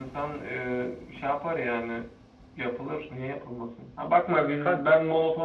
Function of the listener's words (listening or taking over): listening